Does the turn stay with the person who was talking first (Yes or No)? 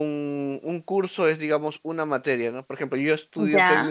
Yes